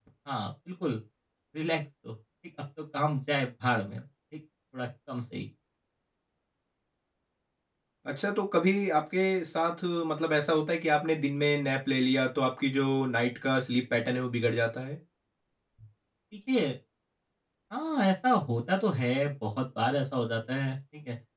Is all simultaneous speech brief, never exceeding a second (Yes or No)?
Yes